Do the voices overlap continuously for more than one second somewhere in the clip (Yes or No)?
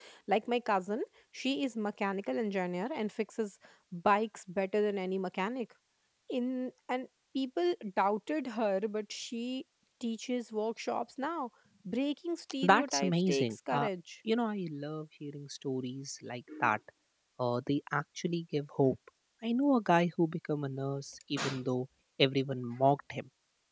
Yes